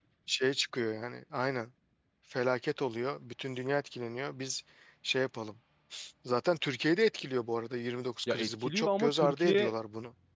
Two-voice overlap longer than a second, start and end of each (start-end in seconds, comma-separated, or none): 8.3-9.7